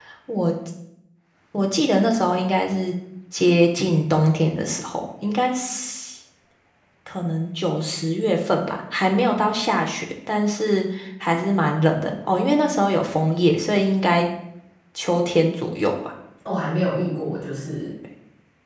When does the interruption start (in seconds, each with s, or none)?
none